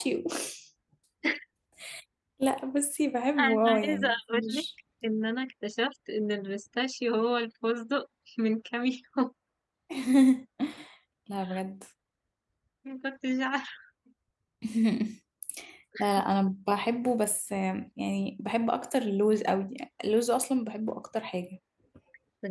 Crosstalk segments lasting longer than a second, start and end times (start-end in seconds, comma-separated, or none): 3.4-4.6